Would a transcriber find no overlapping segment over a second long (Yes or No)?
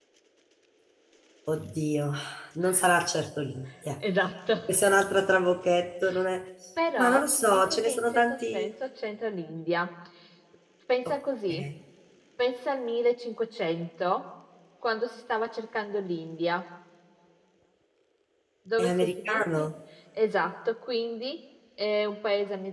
No